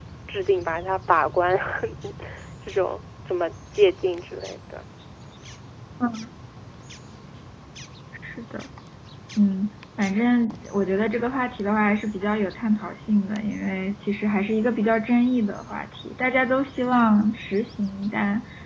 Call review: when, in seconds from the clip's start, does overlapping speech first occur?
none

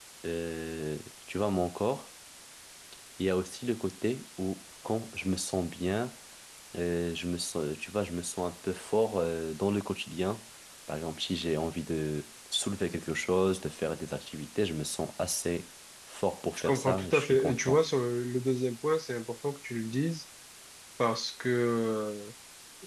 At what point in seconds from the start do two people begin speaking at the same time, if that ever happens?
16.6 s

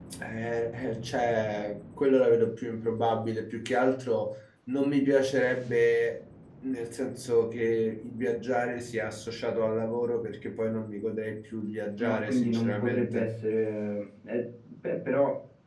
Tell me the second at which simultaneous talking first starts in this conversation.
12.0 s

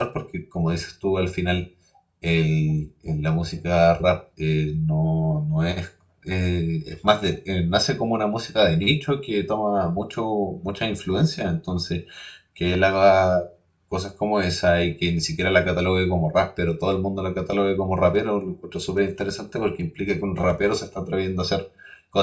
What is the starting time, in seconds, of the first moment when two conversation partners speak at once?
none

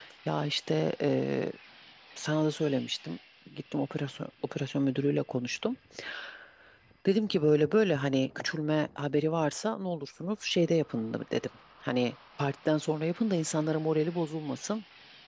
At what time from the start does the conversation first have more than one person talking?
none

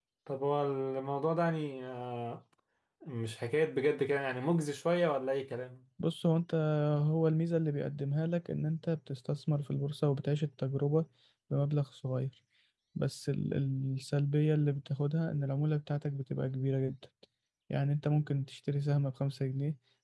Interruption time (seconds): none

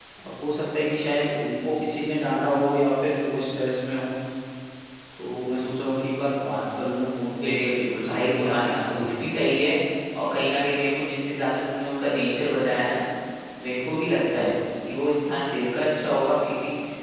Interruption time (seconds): 7.4 s

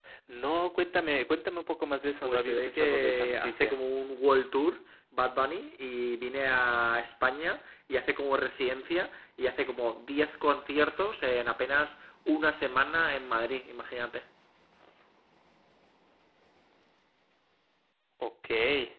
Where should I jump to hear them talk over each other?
2.2 s

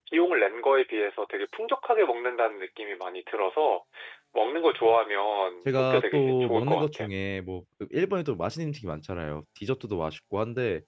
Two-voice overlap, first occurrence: 5.7 s

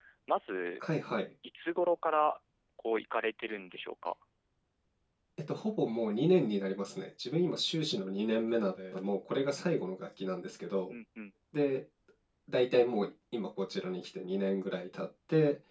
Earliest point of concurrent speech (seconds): none

